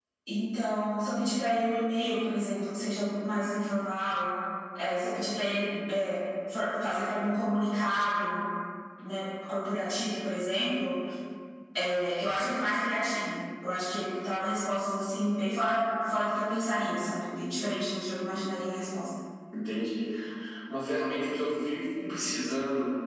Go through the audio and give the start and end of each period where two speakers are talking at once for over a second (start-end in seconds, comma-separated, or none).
none